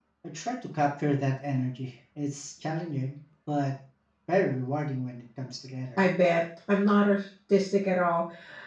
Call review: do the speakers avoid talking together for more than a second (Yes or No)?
Yes